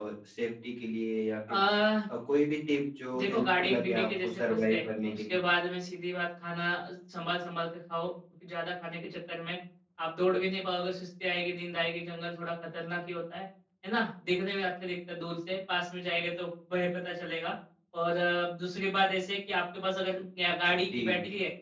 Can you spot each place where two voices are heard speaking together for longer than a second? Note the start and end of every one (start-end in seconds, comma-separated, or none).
3.1-5.4